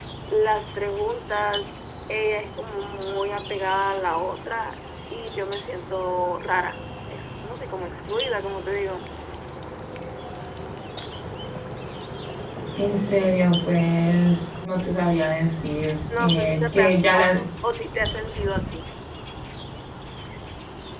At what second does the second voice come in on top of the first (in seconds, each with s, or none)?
16.1 s